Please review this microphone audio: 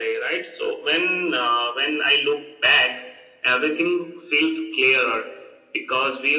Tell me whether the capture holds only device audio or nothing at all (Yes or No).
Yes